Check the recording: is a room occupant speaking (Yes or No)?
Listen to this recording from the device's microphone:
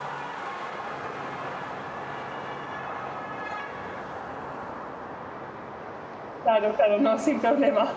Yes